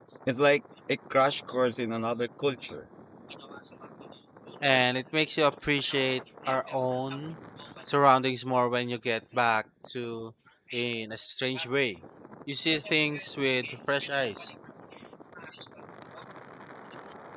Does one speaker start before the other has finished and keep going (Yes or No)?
No